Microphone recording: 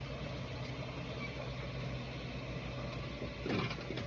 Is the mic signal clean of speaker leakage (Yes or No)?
Yes